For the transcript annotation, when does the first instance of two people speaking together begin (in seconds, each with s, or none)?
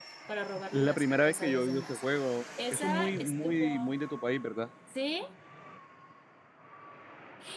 0.7 s